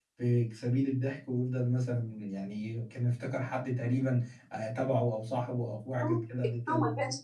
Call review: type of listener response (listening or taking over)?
taking over